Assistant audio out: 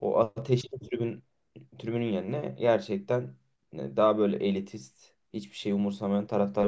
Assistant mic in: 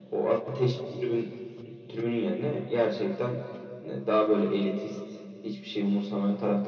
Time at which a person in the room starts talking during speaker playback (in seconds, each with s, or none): none